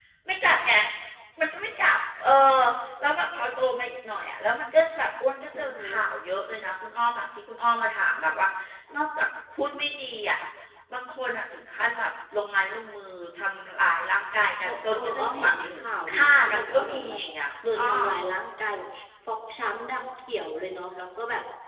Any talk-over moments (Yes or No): Yes